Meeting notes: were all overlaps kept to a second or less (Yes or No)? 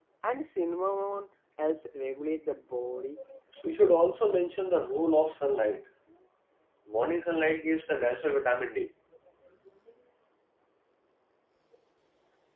Yes